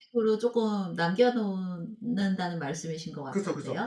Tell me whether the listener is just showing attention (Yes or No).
No